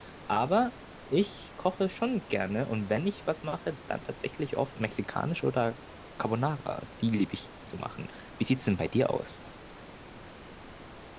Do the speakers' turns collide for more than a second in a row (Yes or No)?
No